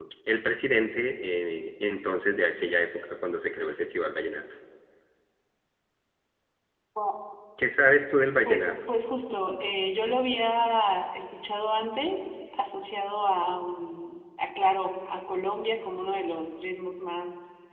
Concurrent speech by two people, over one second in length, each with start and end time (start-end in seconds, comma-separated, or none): none